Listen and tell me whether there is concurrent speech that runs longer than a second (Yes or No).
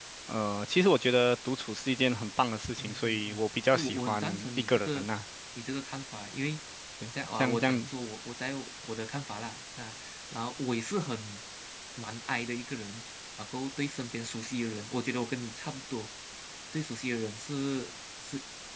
Yes